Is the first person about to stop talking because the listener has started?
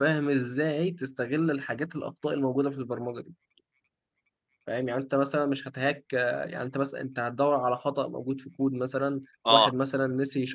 No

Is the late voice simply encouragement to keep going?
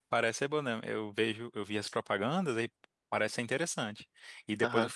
Yes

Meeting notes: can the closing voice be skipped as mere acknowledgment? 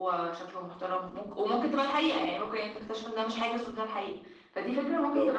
No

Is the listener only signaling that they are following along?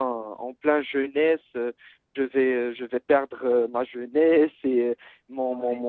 Yes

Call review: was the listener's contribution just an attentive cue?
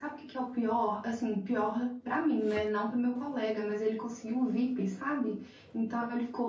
Yes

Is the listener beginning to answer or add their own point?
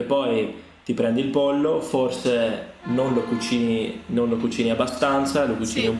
No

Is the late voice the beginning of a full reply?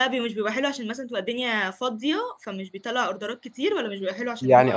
Yes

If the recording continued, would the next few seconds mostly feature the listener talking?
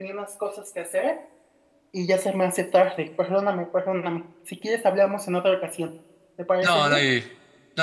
Yes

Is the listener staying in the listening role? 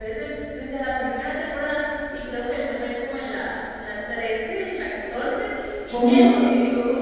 Yes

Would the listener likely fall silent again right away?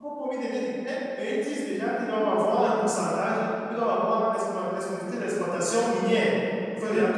Yes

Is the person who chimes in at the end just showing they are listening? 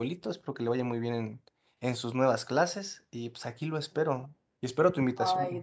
No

